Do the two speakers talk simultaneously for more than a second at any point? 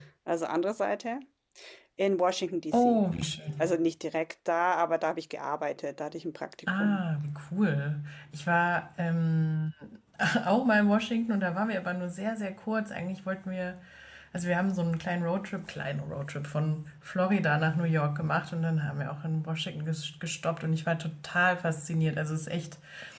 No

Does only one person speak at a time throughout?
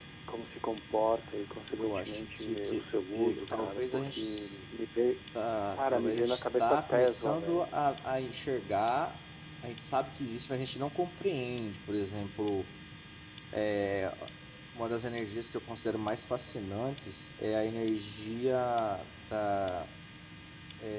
No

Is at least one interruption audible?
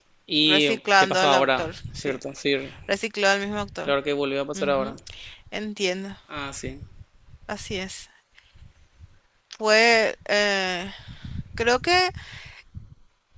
Yes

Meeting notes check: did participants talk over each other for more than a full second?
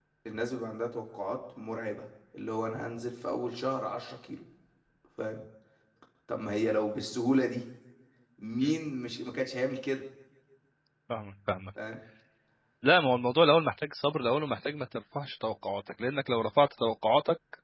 No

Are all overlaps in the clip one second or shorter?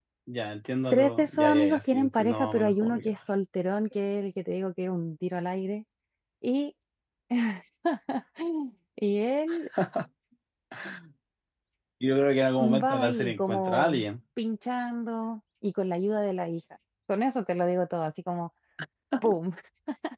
No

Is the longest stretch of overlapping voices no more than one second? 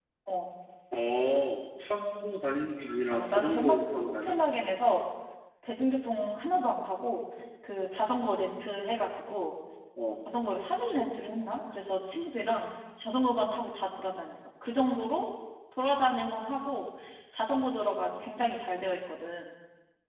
No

